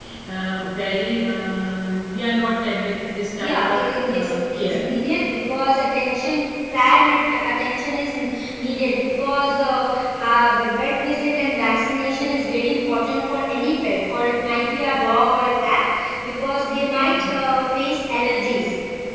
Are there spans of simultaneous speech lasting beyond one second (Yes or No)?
Yes